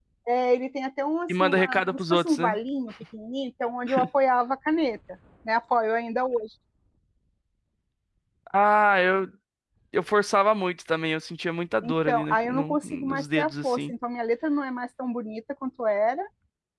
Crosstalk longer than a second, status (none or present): present